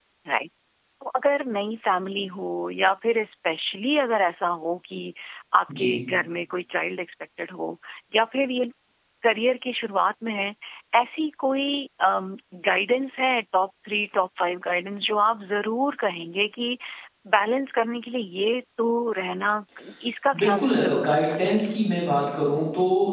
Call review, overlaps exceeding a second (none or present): present